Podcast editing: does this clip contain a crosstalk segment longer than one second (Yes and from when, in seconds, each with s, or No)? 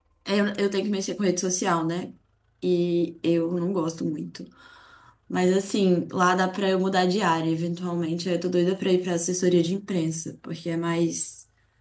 No